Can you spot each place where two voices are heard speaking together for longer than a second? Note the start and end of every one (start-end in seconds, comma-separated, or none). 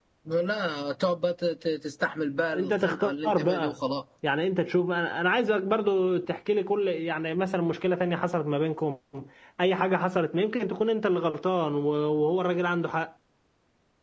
2.5-3.8